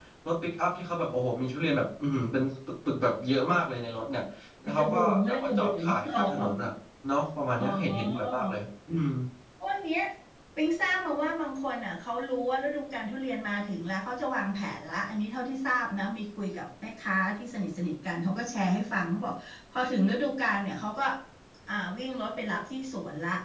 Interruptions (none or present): present